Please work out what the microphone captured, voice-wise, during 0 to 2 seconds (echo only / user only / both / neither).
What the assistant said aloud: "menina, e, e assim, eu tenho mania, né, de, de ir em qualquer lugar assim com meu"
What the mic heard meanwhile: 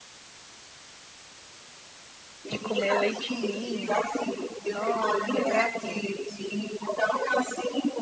neither